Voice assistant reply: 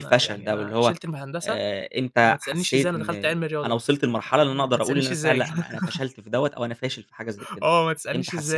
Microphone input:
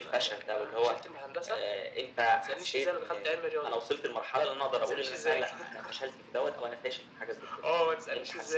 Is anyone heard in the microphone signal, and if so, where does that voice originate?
echo only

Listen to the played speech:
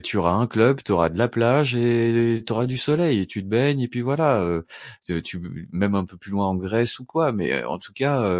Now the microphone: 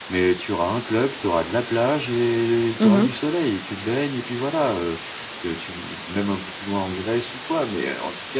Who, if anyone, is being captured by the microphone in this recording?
both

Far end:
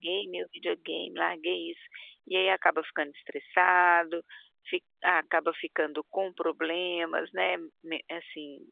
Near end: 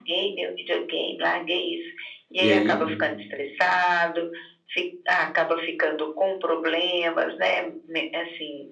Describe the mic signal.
both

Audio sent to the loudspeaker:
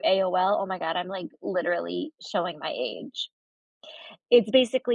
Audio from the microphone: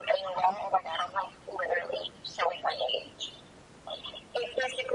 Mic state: echo only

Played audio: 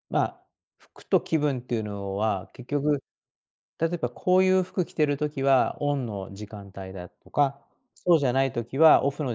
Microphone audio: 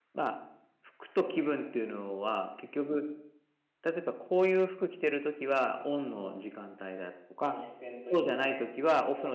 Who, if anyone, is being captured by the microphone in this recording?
both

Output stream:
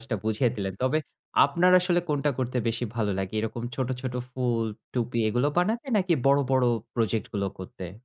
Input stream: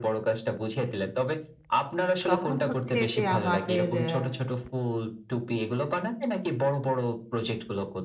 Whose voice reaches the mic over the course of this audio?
both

